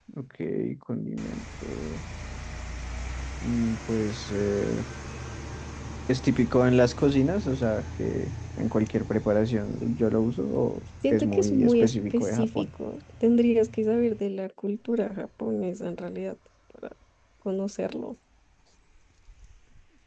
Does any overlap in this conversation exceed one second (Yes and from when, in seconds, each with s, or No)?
Yes, from 11.0 s